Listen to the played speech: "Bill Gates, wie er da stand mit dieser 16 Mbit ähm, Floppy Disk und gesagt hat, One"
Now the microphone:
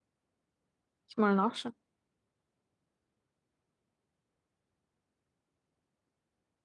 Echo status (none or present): none